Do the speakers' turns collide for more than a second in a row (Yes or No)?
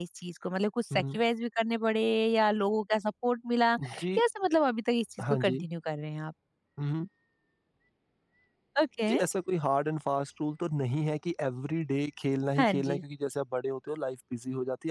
No